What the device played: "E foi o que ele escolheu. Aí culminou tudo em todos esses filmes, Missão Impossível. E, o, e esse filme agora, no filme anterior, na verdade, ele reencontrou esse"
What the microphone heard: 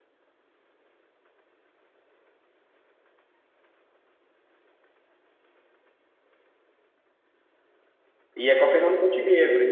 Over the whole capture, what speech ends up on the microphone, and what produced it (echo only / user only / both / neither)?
user only